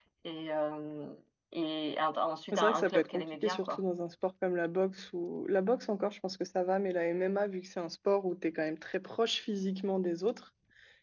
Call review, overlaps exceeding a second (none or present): present